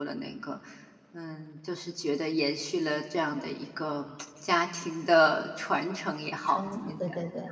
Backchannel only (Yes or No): No